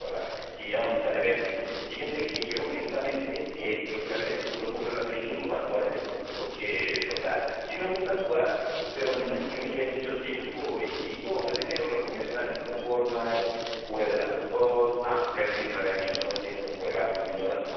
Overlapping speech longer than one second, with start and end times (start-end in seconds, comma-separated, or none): none